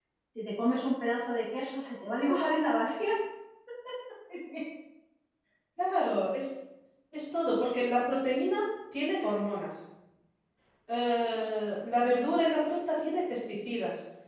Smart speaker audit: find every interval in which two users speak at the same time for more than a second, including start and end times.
none

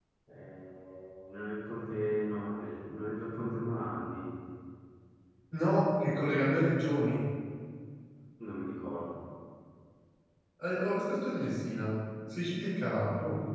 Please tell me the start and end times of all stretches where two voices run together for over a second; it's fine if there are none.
none

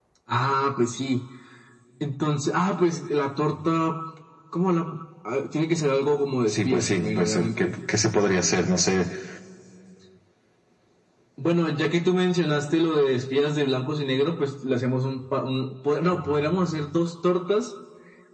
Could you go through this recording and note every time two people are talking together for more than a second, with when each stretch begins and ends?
6.5-7.8

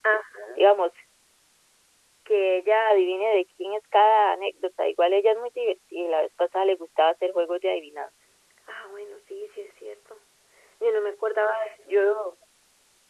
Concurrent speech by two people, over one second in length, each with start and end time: none

